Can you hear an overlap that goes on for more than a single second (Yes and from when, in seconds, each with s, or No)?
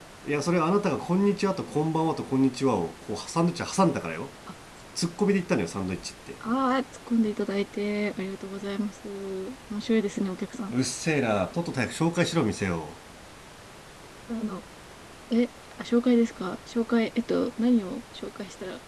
No